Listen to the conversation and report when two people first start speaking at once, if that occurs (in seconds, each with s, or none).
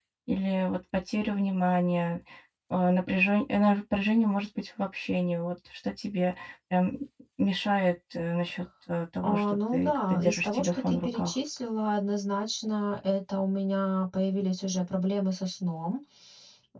9.2 s